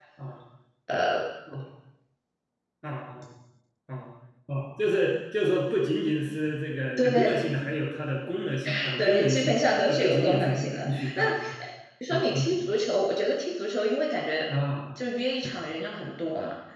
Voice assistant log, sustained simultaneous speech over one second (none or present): present